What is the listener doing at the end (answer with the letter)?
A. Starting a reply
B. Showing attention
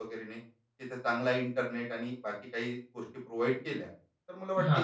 B